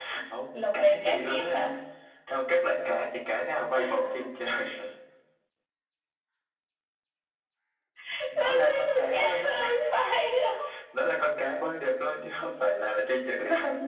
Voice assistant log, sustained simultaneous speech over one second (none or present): present